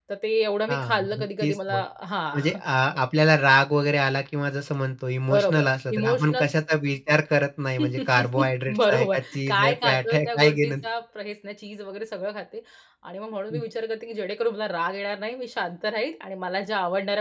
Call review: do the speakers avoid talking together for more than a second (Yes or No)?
No